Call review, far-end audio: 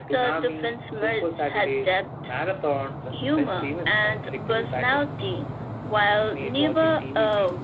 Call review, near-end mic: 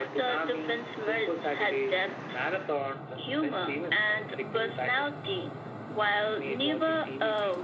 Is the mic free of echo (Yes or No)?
No